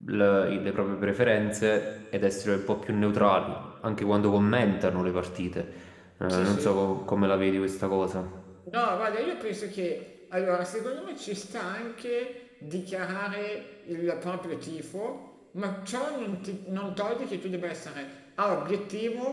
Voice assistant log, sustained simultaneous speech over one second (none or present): none